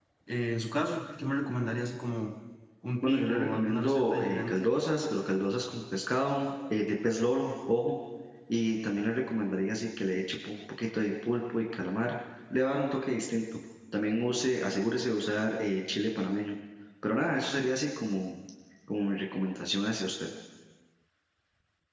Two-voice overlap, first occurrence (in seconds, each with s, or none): 3.0 s